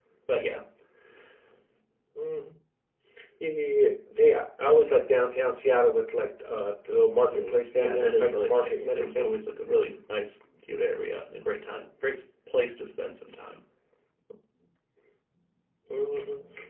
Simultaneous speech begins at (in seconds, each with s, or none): 7.3 s